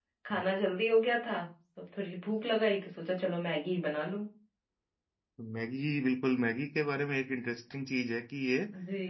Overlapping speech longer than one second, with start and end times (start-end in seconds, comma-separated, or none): none